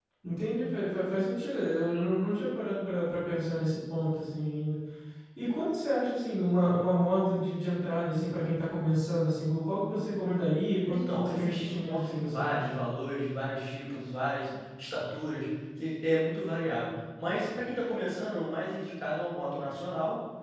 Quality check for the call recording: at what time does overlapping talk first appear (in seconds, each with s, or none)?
10.9 s